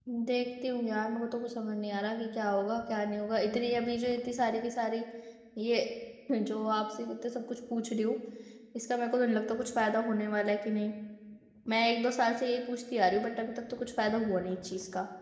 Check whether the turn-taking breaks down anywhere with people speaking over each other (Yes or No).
No